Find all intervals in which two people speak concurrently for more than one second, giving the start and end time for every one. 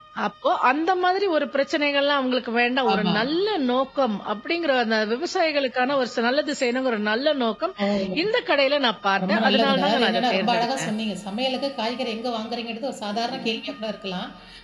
9.3-10.9

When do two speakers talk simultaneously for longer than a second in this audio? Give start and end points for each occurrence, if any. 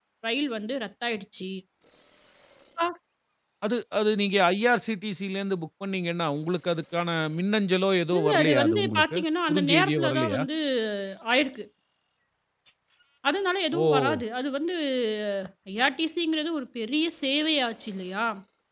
8.2-10.4

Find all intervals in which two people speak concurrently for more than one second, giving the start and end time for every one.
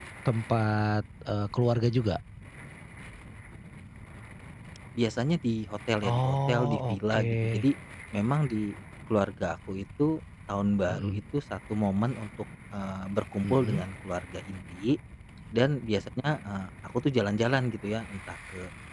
6.0-7.6

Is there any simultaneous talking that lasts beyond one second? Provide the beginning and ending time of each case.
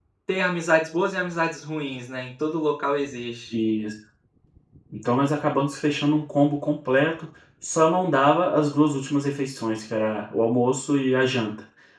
none

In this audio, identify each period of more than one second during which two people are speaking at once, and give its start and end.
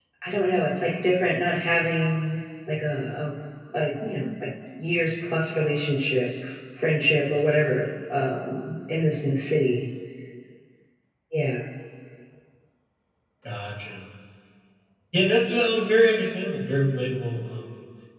none

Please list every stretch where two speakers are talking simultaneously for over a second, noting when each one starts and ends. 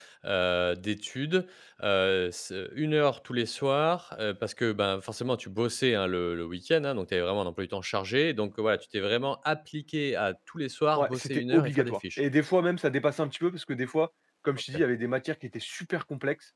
11.0-12.2

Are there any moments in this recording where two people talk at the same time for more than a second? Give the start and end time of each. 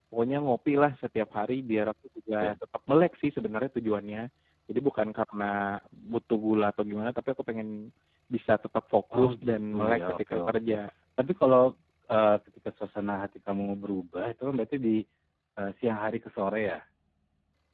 9.2-10.7

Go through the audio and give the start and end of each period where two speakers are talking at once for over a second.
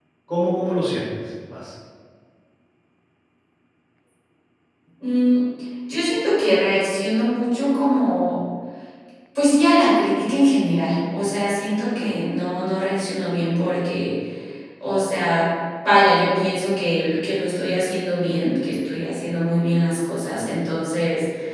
none

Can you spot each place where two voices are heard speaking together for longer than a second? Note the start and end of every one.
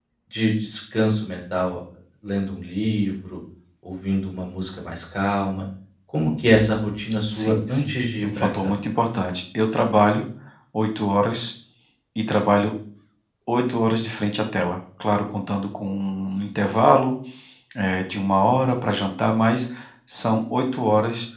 7.3-8.8

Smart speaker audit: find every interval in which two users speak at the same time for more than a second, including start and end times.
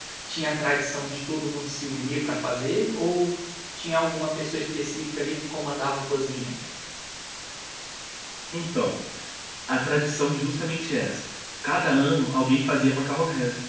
none

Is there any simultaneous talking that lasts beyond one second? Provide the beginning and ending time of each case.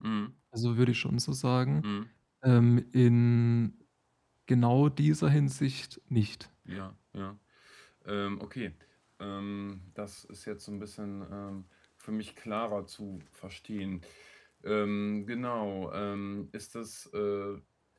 none

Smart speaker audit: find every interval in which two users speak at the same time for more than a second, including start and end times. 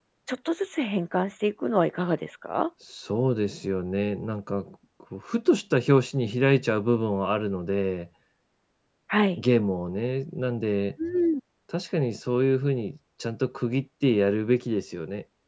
none

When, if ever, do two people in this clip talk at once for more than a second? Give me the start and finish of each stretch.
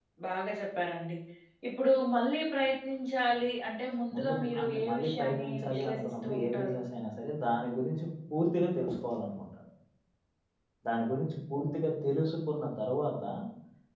4.1-6.8

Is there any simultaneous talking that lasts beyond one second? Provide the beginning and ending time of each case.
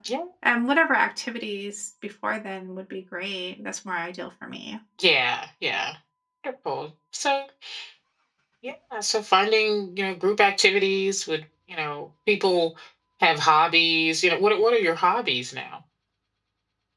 none

